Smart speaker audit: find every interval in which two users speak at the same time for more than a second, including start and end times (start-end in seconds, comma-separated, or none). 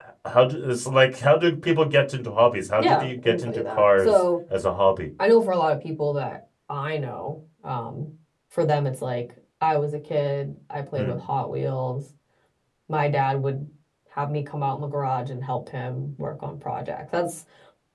2.8-4.2